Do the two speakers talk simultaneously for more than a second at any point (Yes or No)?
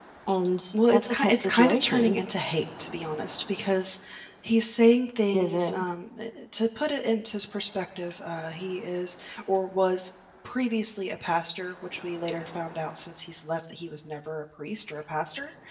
Yes